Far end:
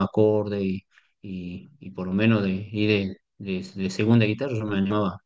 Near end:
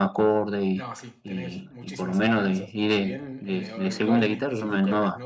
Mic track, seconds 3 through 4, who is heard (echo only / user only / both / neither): both